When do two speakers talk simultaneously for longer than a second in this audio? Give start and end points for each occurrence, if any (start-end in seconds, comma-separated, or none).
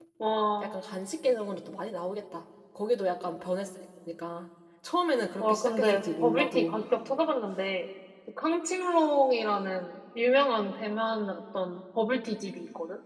5.4-6.8